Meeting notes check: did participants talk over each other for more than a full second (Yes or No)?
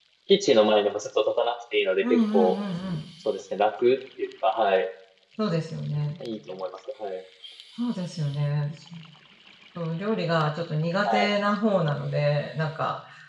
No